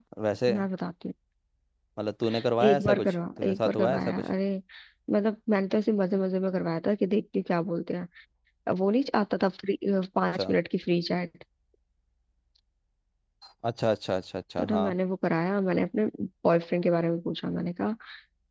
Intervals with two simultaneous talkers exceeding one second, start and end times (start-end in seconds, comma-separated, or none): 2.6-4.2